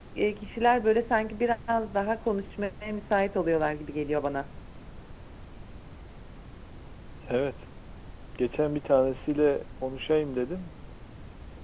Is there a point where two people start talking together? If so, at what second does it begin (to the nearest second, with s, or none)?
none